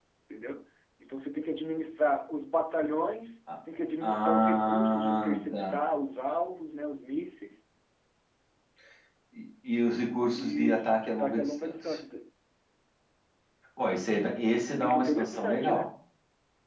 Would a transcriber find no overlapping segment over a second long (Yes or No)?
No